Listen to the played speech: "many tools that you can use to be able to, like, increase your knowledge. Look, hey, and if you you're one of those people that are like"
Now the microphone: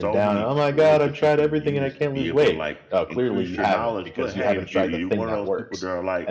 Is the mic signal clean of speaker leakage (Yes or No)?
No